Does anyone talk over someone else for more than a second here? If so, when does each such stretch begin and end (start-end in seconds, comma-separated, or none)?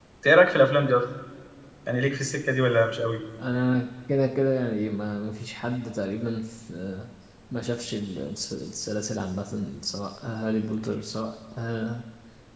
none